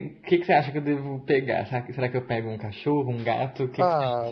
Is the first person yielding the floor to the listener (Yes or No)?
Yes